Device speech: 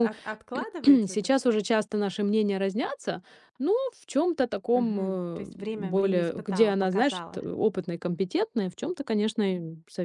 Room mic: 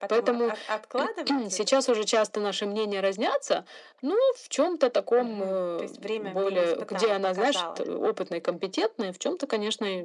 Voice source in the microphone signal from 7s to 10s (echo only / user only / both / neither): echo only